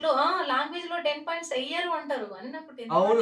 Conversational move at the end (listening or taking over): taking over